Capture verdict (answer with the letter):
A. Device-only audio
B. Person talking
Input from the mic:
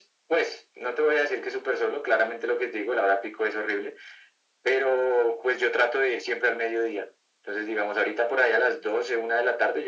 A